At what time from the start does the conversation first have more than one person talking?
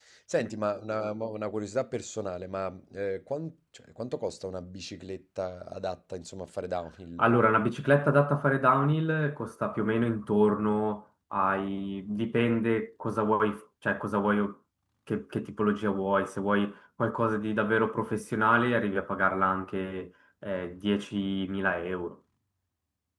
none

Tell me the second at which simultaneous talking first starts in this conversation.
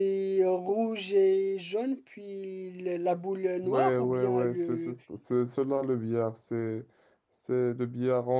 4 s

